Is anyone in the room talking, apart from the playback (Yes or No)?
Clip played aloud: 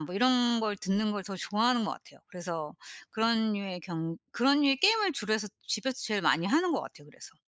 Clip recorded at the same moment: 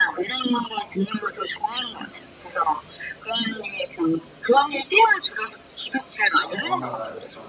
Yes